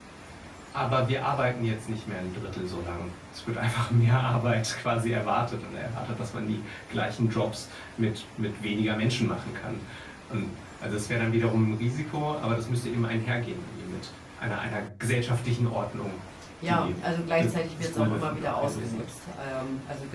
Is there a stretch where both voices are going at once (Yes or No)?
Yes